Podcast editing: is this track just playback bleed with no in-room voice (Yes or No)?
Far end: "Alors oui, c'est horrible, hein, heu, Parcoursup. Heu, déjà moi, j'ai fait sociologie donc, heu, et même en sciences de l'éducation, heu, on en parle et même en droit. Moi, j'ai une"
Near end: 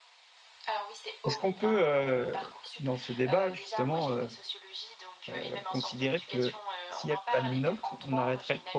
No